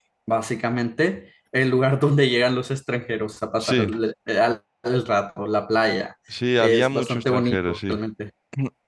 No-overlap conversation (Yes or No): No